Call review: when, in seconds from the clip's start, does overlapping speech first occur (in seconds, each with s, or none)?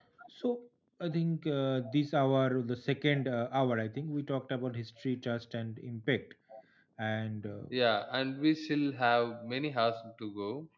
none